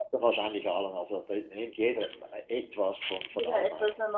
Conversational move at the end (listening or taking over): taking over